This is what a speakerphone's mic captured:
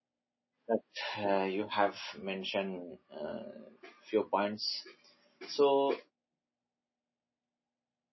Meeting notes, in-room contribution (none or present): present